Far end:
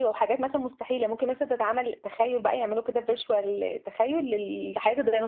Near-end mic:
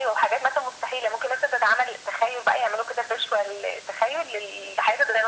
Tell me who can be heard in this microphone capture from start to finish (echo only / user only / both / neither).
echo only